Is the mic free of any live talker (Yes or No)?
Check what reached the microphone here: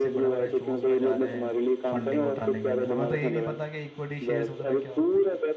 No